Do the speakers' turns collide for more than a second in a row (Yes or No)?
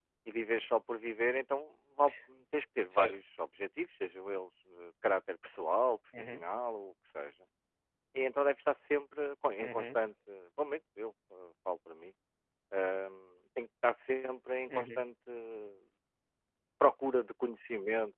No